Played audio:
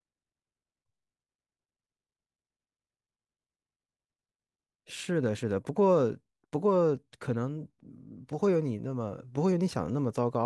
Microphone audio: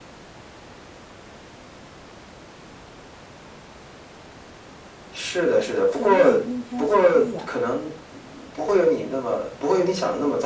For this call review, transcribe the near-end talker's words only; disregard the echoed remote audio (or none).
全面冰天雪地啊，